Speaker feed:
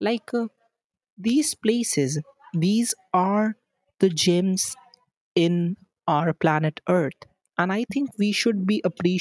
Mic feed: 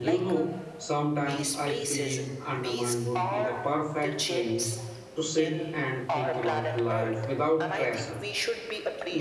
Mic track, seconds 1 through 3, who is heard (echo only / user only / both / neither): both